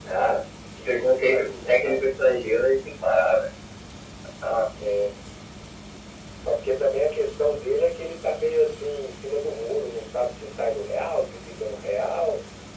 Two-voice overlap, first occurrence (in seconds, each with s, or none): 0.8 s